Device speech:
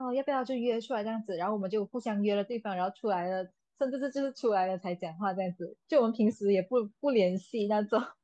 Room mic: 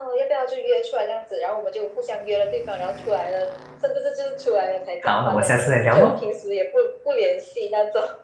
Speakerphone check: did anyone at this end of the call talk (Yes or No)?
Yes